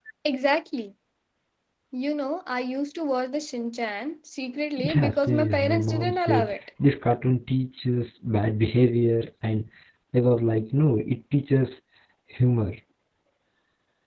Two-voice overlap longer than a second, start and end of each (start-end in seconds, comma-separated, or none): 5.0-6.5